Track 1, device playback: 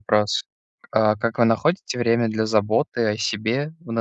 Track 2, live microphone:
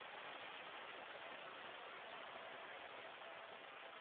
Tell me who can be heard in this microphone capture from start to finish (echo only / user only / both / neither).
neither